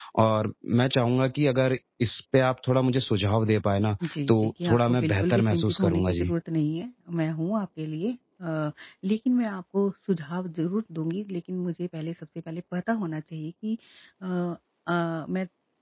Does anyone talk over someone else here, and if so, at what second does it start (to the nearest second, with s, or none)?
4 s